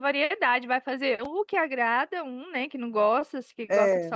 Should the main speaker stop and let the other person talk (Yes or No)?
No